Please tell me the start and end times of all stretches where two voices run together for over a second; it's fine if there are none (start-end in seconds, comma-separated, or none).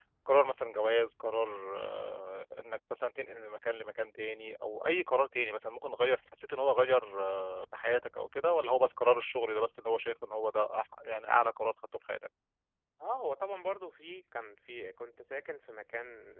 none